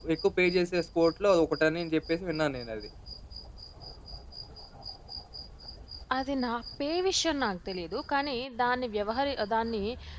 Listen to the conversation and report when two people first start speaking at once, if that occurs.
none

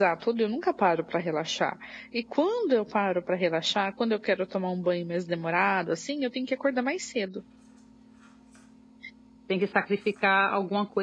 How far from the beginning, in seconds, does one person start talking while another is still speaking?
none

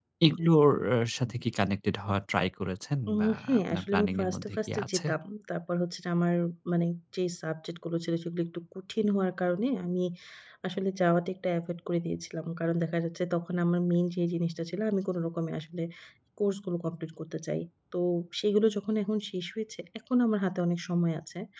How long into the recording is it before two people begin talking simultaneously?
3.1 s

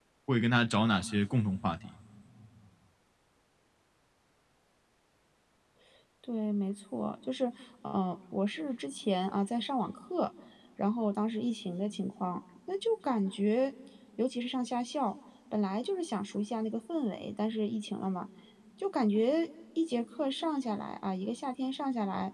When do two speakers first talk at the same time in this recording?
none

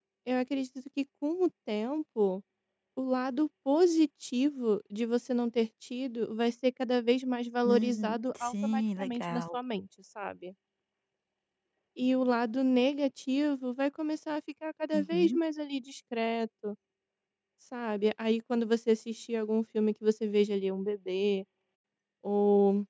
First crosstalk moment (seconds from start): 7.7 s

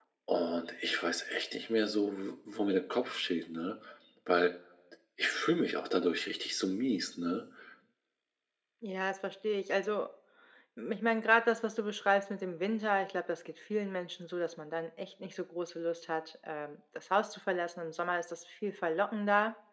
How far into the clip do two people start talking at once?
none

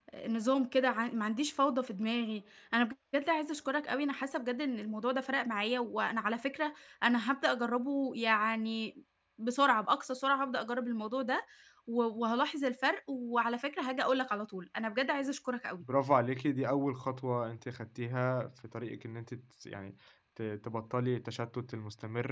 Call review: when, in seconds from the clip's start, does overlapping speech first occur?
none

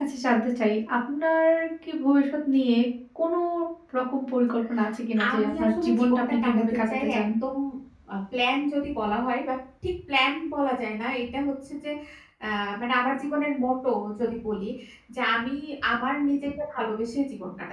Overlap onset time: 5.2 s

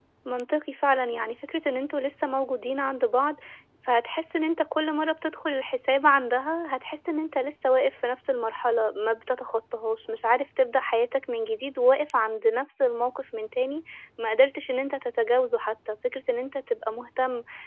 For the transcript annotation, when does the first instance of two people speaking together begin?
none

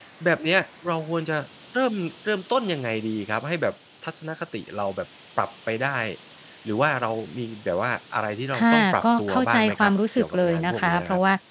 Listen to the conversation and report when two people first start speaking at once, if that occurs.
8.5 s

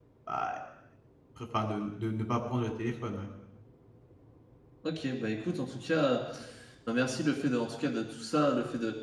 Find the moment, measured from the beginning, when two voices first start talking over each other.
none

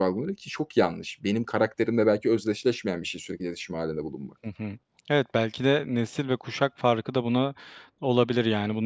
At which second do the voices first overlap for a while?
none

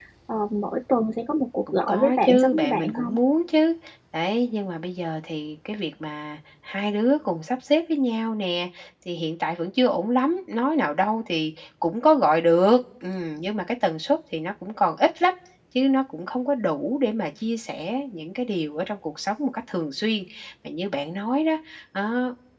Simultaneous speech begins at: 1.7 s

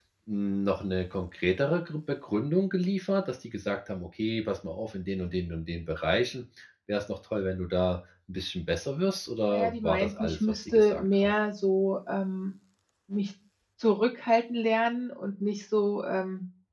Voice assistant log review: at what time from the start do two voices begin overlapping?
9.5 s

